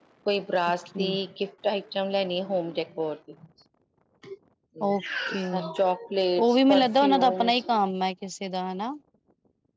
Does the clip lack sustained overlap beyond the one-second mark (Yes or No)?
No